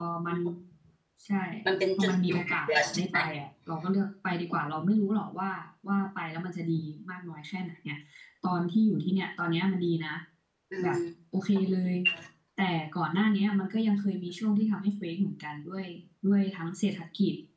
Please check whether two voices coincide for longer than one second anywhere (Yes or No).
Yes